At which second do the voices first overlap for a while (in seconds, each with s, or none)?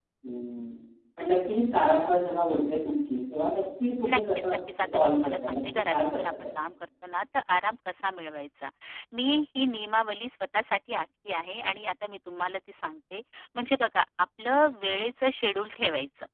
4.0 s